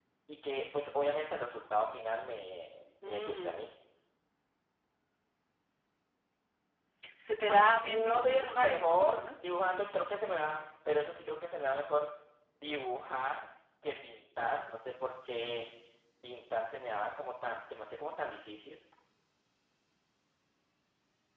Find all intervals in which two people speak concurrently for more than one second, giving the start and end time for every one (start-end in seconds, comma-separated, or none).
7.5-9.2